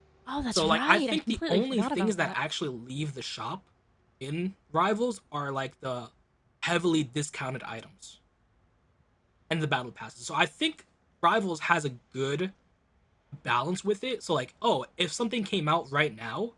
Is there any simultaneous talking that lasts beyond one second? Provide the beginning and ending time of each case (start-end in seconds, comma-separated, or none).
0.5-2.3